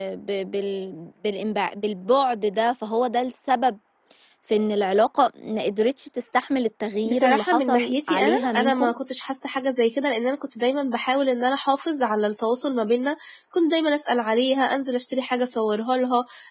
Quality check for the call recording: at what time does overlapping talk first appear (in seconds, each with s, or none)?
7.0 s